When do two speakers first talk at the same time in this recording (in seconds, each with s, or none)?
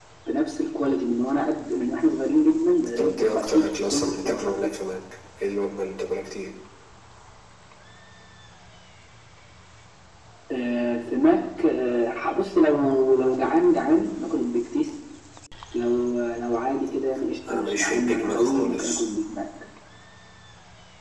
3.0 s